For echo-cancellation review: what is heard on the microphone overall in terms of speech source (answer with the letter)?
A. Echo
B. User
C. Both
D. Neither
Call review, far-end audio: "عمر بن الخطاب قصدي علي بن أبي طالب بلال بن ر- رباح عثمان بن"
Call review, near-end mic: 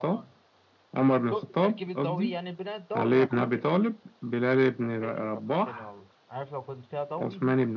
C